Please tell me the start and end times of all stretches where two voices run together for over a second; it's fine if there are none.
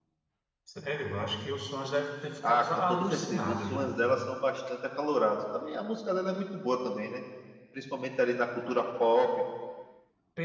2.5-3.9

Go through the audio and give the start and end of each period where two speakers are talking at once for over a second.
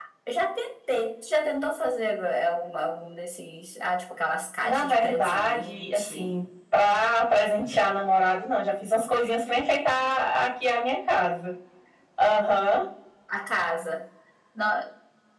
4.6-6.3

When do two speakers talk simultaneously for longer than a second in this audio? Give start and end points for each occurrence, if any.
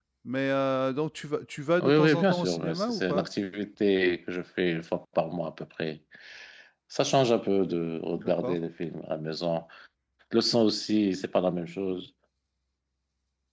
1.8-3.3

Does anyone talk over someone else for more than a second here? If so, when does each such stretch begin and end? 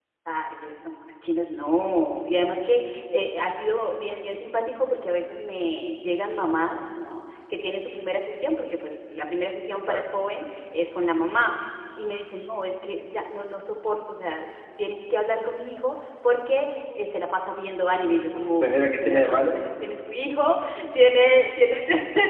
18.0-19.6

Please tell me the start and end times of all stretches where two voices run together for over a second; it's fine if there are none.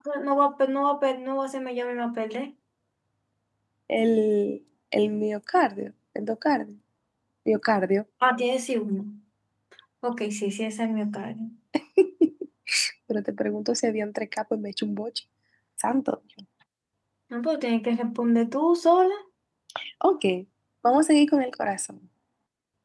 none

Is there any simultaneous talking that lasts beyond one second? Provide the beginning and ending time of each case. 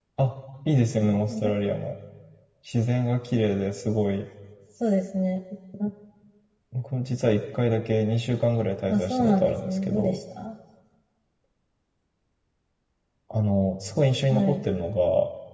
8.9-10.2

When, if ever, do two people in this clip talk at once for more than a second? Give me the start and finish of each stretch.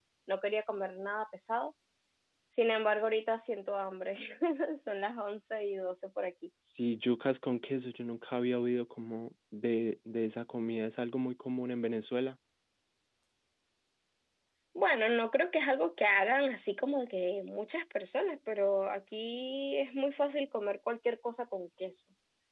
none

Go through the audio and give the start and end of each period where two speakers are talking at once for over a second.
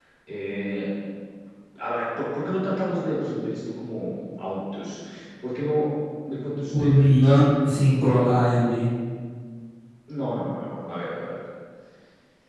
none

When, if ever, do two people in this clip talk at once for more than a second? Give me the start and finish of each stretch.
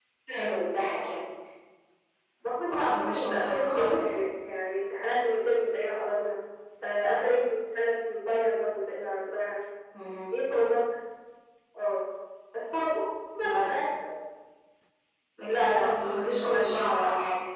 2.7-4.1, 15.5-16.9

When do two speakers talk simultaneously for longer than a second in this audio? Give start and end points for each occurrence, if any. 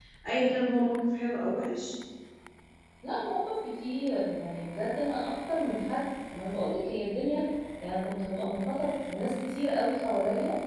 none

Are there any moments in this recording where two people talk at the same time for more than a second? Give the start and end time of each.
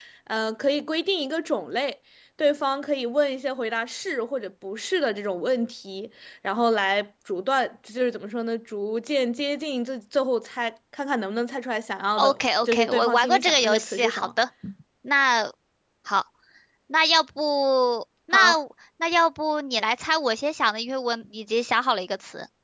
12.2-14.3

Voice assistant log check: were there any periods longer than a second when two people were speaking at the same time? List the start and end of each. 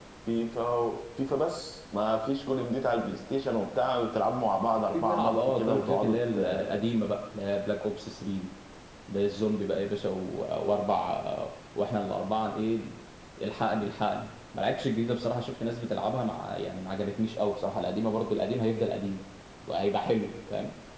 4.9-6.2

